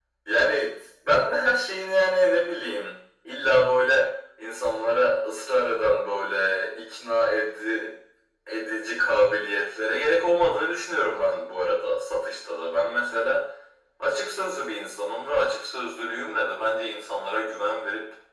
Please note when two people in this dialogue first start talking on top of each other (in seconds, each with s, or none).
none